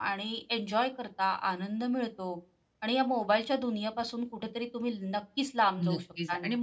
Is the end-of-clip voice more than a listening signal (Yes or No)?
Yes